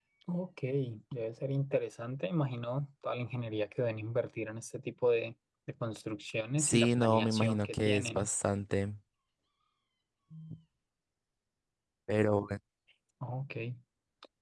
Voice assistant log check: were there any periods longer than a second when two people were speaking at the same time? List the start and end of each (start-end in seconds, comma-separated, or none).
6.6-8.3